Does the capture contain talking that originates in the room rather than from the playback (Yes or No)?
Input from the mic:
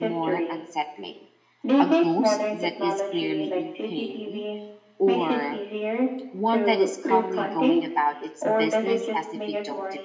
Yes